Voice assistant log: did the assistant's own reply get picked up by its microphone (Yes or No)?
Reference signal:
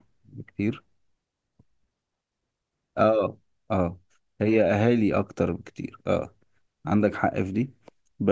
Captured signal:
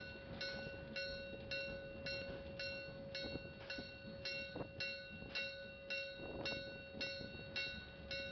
No